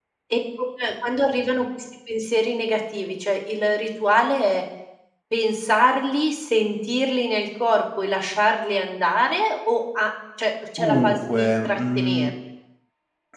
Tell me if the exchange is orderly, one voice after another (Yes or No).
No